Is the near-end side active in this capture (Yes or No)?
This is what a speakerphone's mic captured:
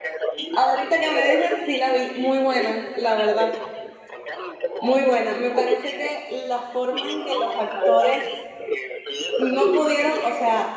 Yes